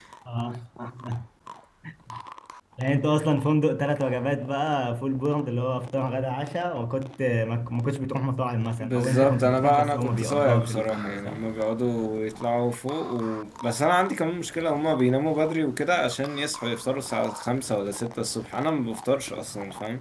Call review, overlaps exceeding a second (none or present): present